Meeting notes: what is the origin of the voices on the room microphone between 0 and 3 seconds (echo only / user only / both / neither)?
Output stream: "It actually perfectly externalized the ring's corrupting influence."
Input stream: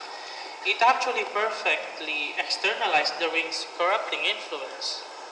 echo only